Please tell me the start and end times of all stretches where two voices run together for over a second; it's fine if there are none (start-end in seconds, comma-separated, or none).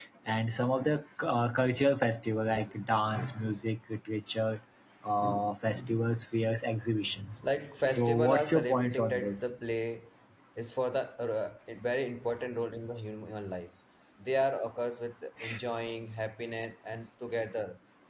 7.9-9.4